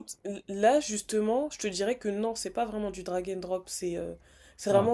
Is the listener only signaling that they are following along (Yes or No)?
Yes